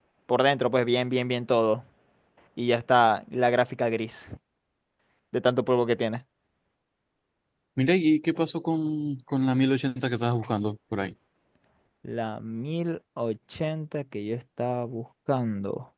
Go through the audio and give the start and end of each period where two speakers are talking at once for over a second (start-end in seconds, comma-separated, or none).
none